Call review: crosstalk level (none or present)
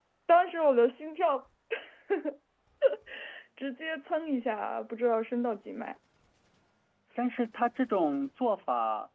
none